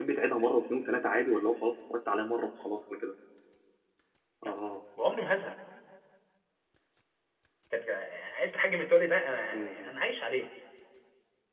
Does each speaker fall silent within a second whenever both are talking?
Yes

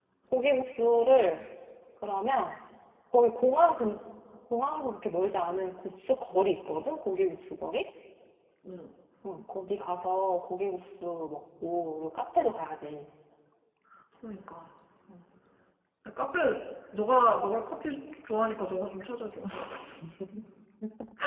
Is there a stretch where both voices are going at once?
No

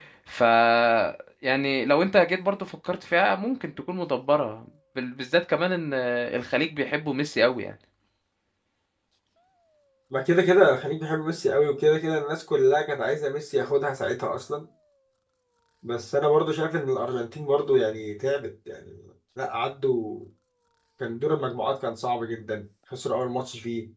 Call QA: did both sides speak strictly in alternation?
Yes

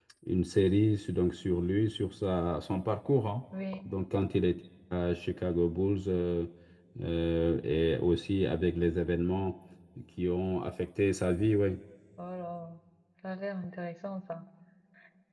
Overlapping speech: No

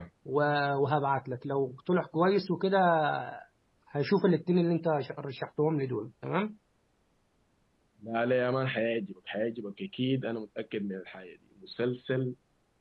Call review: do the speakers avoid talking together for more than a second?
Yes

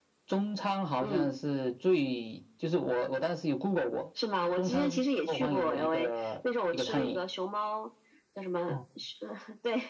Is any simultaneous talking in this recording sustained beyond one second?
Yes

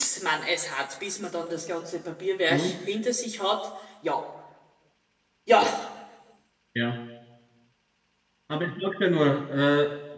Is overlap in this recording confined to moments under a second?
Yes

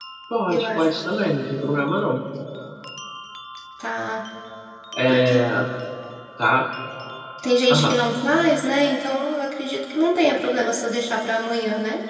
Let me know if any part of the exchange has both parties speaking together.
Yes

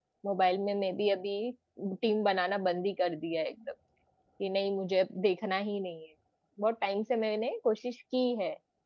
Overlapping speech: No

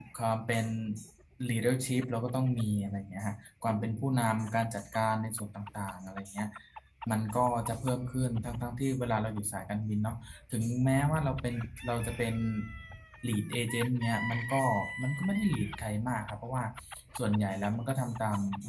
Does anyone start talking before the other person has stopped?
No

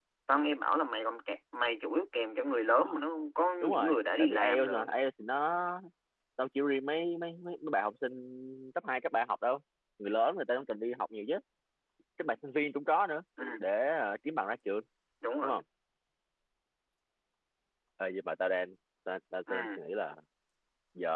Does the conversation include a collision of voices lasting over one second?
Yes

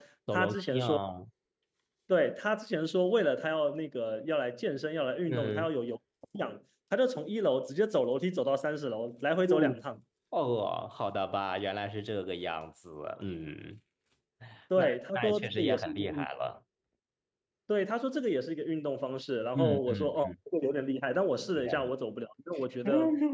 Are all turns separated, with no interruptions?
No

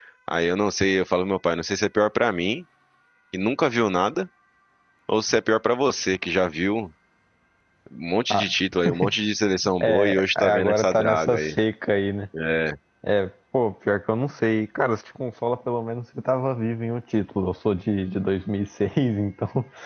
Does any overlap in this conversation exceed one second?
Yes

